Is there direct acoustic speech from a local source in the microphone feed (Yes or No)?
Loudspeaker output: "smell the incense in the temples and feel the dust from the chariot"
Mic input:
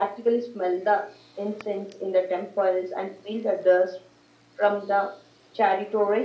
No